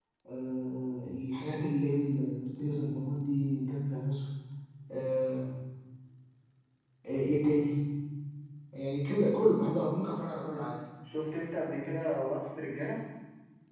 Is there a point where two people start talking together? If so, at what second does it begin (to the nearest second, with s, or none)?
none